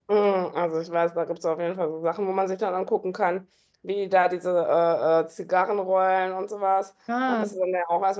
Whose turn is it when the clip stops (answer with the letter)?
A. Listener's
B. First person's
B